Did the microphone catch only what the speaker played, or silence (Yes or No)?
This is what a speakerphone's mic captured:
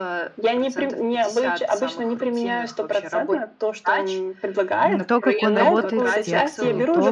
No